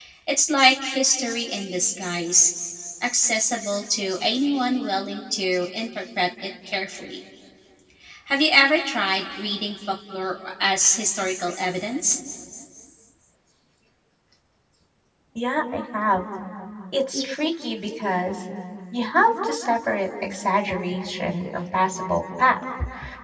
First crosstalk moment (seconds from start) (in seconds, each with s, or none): none